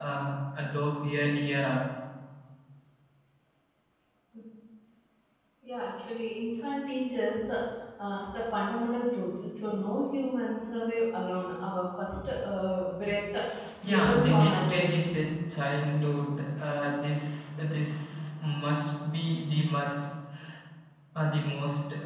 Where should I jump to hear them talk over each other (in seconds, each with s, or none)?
13.9 s